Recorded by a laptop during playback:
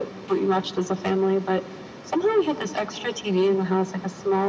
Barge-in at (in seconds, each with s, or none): none